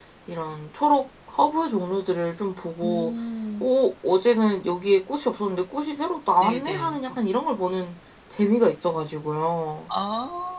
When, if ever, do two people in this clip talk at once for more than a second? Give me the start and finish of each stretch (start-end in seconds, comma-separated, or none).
none